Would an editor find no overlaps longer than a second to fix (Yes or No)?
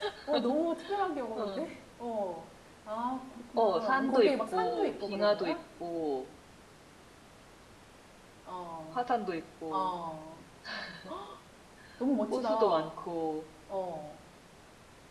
No